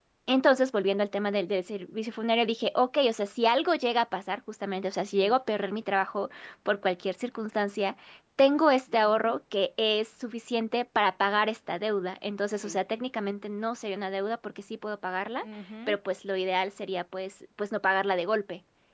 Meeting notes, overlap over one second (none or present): none